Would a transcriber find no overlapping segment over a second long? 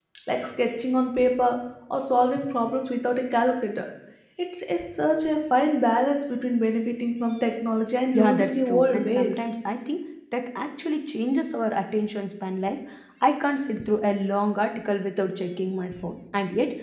No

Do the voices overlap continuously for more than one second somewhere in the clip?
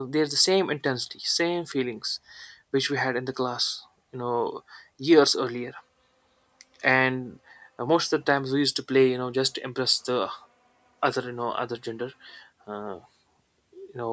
No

